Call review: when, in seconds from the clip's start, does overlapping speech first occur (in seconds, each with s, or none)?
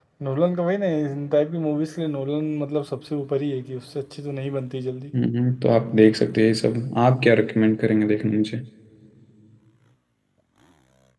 none